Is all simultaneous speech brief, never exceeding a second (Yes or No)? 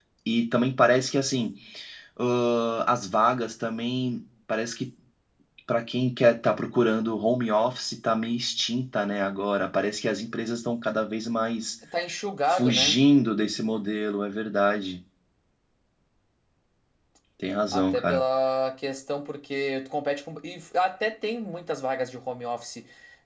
Yes